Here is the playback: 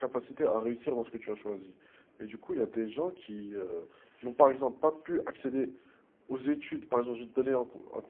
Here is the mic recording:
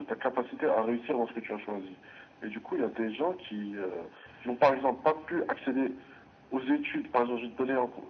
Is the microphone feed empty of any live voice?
Yes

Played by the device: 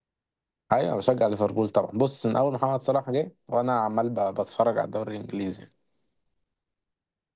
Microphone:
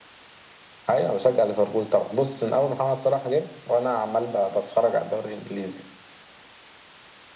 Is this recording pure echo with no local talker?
Yes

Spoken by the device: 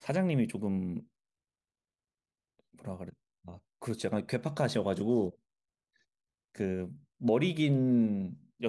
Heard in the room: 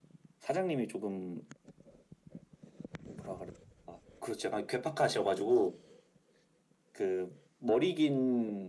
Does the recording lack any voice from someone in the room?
Yes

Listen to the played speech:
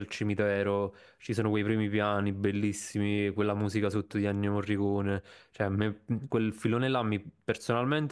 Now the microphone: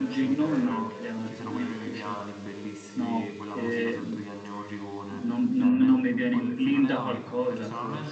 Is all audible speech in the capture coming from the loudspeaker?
No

